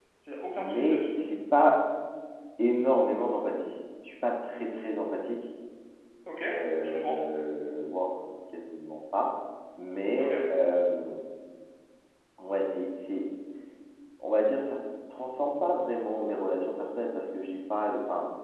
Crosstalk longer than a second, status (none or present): none